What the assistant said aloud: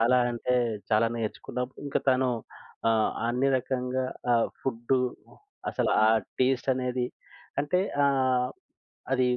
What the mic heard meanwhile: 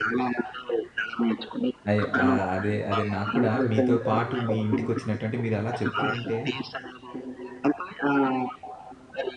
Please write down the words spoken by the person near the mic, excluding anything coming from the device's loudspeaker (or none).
అయ్యో! ఆహ్, అదే, అదే నాకు కూడా మీతో పాటు మీ ఇంటికొచ్చినట్టు అంటే మీరలా చెప్తూ ఉంటే,